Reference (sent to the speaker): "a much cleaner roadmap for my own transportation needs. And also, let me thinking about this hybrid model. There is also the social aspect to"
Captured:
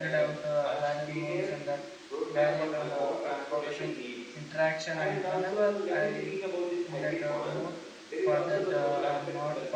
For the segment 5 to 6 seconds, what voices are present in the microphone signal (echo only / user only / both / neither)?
both